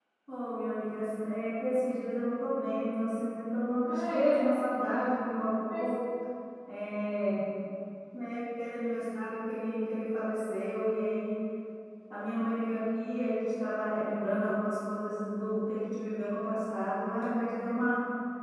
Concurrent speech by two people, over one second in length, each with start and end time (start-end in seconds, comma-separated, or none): 3.9-5.1